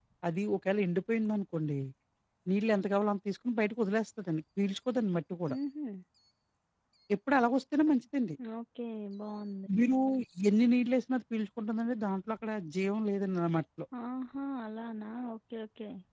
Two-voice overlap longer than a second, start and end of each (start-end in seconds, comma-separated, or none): none